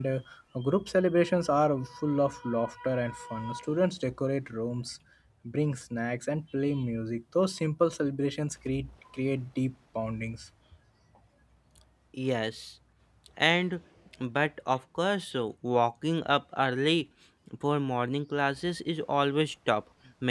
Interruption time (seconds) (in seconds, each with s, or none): none